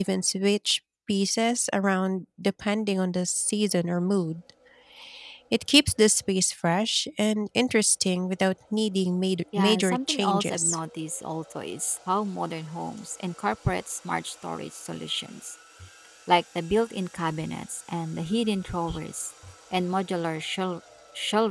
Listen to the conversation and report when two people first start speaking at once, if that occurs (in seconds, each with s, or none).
9.5 s